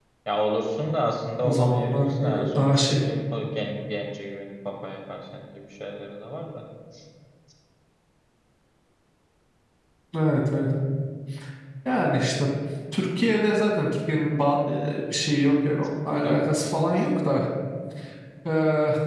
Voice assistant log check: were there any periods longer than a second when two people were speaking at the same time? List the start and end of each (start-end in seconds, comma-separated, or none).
1.4-2.8